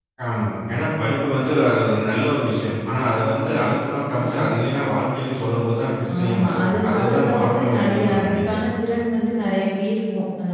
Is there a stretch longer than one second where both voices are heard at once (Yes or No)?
Yes